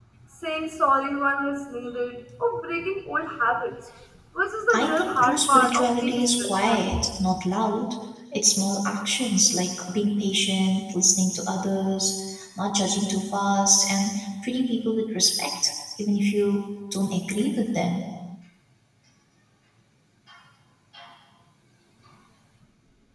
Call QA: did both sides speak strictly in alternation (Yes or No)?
No